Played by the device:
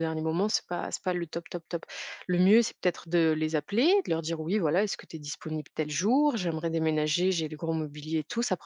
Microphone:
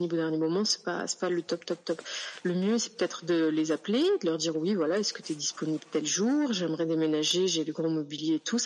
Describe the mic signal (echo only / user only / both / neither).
echo only